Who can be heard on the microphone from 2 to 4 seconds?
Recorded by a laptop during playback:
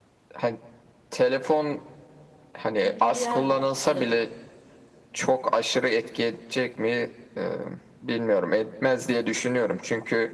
both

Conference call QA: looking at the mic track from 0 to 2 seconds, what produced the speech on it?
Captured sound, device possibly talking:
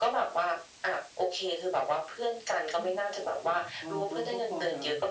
echo only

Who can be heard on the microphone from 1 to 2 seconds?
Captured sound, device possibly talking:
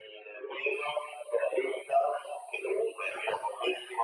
echo only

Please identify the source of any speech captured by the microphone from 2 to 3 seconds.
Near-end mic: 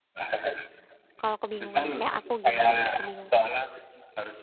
both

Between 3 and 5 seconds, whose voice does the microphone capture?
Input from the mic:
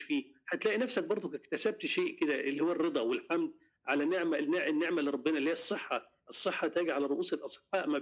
echo only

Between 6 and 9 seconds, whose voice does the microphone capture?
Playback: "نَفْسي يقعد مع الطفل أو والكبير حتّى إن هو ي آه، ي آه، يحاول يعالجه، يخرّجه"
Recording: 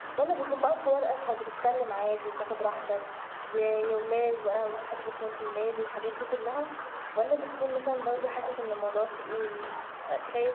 user only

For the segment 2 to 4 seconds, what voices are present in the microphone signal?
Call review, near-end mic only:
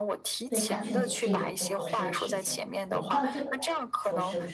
both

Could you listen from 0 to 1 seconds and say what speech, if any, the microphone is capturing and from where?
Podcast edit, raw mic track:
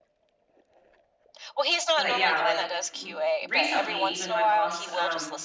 neither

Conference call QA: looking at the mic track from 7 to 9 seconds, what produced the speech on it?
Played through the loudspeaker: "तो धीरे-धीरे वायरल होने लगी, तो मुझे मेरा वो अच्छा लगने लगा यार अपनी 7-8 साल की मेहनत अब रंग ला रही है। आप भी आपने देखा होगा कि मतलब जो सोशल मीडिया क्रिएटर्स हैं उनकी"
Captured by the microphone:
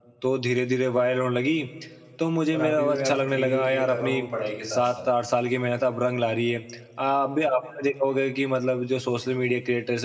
echo only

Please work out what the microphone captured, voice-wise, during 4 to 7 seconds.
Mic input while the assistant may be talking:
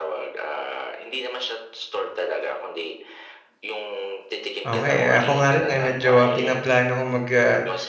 both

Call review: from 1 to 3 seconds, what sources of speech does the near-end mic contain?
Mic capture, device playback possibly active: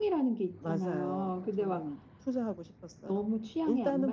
both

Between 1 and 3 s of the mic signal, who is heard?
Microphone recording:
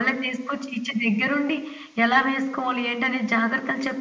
echo only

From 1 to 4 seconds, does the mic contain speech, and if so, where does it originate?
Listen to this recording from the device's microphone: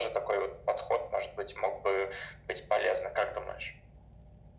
echo only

